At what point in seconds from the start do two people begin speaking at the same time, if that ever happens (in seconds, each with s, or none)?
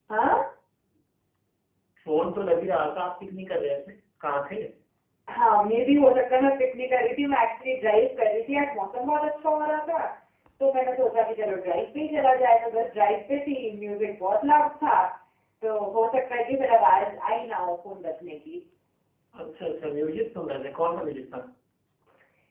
none